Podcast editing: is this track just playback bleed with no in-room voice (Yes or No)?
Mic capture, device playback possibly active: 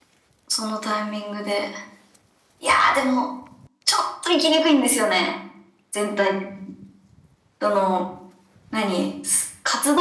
Yes